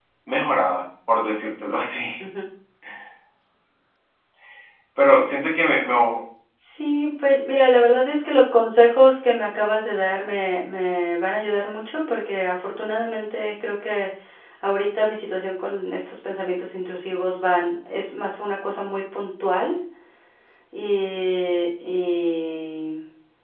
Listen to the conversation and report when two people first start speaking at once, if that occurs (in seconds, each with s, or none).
none